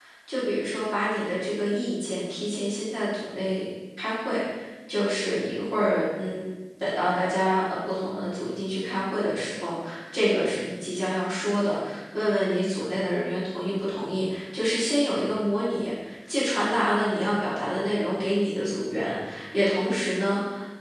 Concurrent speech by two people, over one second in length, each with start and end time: none

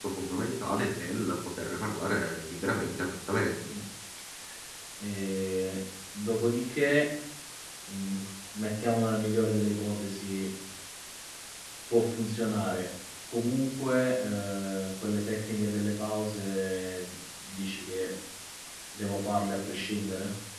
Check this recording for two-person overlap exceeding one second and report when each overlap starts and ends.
none

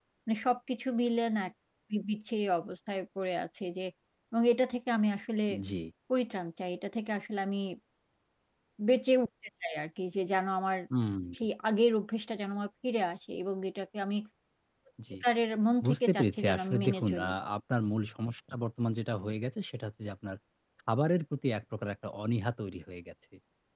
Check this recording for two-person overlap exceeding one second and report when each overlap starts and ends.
15.8-17.3

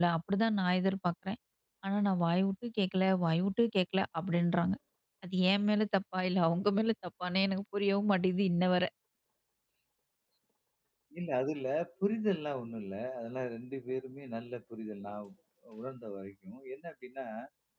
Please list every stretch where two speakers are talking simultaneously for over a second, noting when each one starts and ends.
none

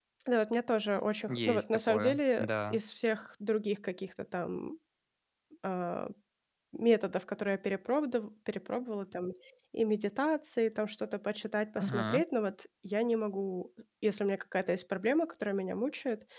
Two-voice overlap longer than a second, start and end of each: 1.3-2.8

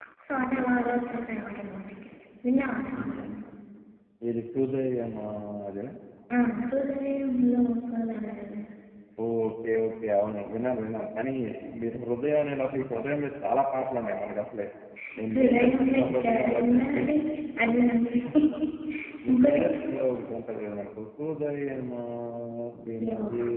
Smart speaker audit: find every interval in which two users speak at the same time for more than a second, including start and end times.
15.3-17.1

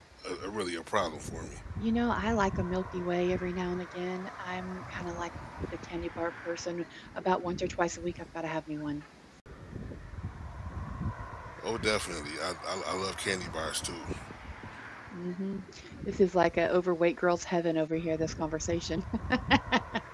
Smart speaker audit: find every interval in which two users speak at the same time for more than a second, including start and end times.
none

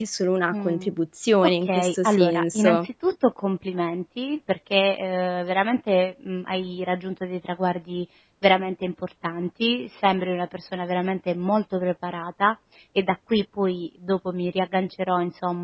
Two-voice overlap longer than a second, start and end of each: 1.6-2.9

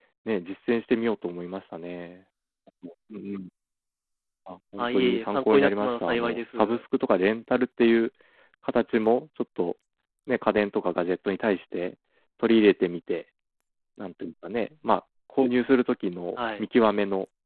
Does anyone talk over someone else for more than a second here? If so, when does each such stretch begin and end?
4.8-6.8

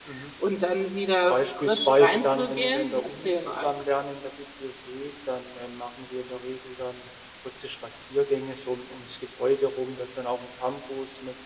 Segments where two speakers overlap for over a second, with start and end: 1.3-3.7

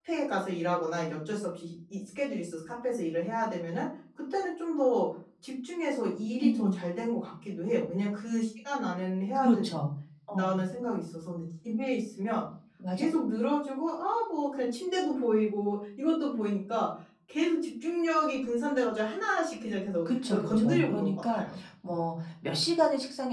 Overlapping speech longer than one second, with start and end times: 20.1-21.4

